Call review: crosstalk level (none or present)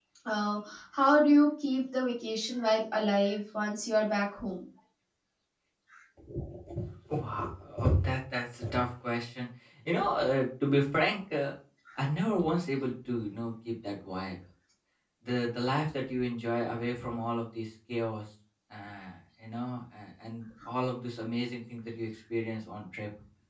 none